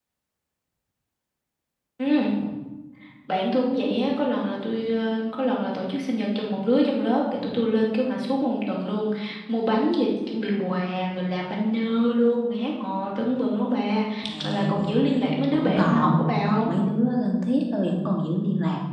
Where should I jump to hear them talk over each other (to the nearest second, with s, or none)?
14 s